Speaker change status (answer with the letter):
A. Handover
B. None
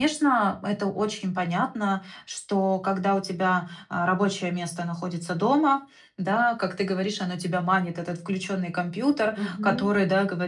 B